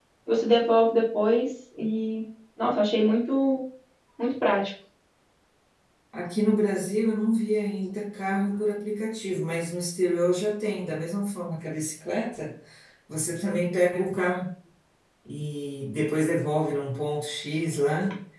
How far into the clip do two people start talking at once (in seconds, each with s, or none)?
none